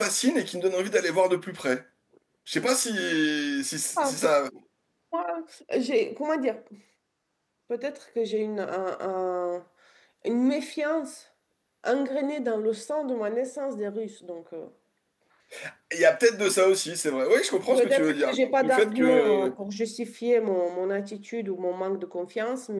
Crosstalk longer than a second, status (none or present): present